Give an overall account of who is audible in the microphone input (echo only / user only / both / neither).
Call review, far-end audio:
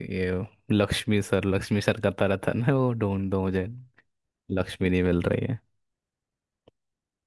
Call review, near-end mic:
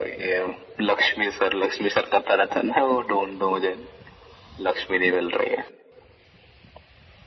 echo only